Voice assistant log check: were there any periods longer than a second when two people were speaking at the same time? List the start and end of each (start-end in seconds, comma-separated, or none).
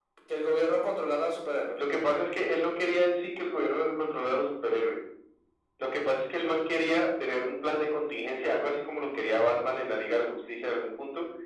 none